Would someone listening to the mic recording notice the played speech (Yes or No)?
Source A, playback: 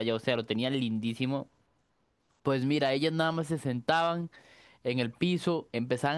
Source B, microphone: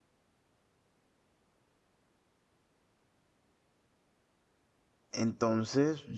No